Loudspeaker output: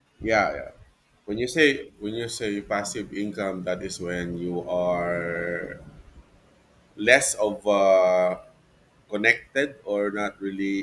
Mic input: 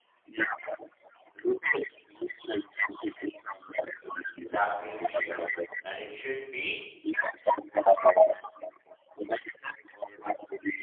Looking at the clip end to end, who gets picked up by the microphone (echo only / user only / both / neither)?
both